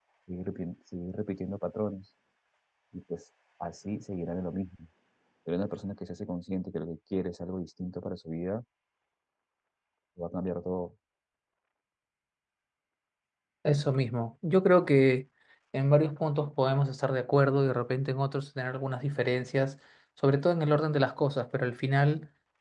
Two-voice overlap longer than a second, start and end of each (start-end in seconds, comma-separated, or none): none